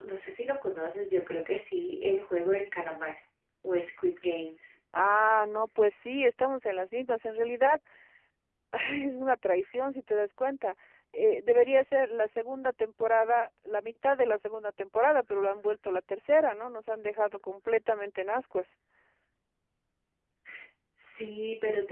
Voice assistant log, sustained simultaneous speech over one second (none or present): none